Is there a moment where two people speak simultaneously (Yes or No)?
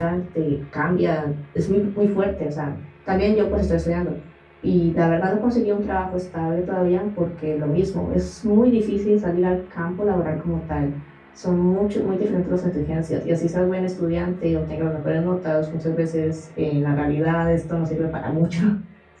No